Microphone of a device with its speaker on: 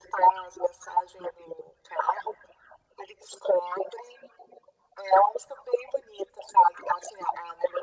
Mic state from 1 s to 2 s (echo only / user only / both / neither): echo only